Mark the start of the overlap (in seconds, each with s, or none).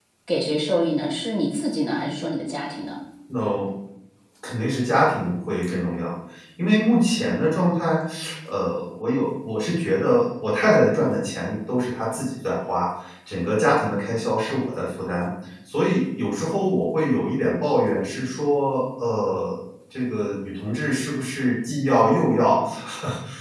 none